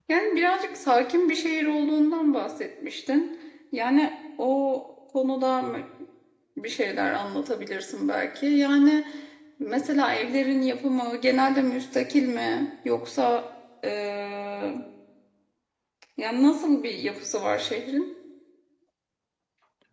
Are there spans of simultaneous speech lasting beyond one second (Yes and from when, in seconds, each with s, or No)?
No